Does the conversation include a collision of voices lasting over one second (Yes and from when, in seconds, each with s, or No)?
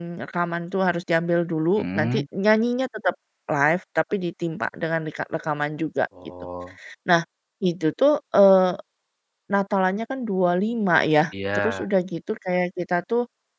No